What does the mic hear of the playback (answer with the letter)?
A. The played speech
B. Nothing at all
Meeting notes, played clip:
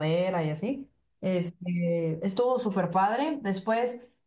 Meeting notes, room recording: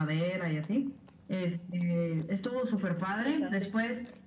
A